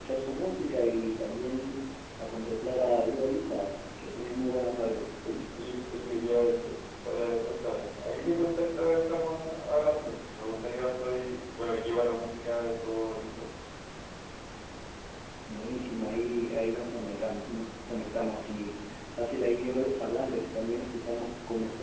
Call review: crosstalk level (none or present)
none